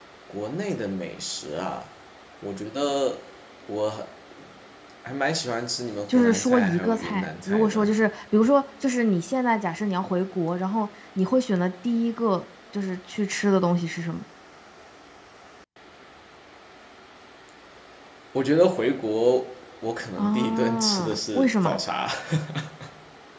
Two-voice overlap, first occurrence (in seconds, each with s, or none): 6.1 s